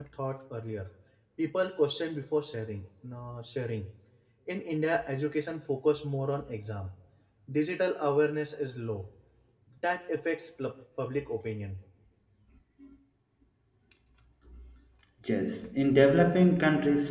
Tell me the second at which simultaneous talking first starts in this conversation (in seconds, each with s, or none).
none